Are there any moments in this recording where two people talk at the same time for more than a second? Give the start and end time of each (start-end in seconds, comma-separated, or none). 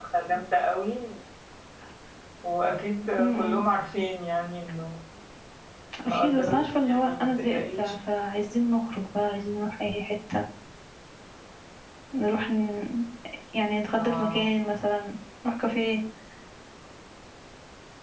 6.0-7.9